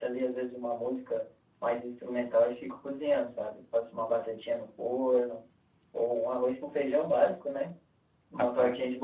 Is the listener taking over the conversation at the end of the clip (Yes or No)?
No